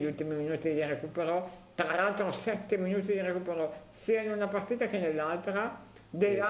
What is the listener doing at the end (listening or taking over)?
listening